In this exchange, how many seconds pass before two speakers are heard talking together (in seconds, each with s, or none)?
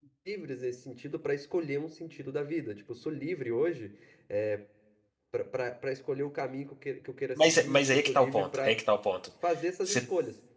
7.4 s